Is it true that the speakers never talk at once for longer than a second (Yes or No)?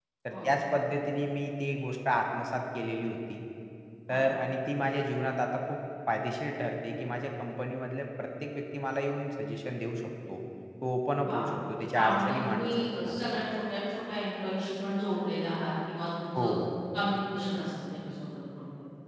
No